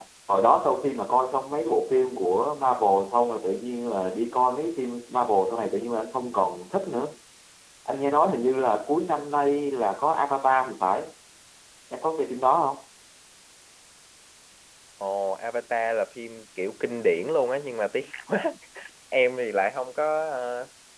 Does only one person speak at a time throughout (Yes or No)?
Yes